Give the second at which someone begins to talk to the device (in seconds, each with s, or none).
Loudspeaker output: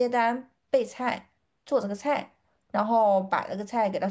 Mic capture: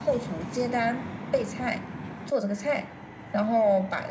none